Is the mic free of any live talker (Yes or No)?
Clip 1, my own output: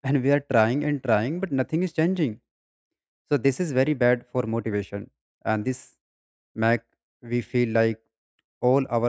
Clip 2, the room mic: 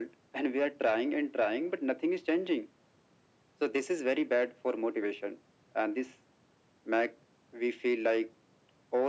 Yes